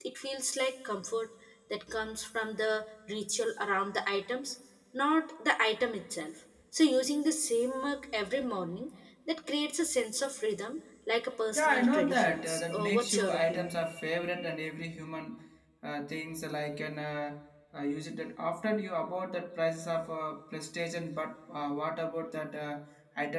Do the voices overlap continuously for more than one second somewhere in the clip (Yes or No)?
Yes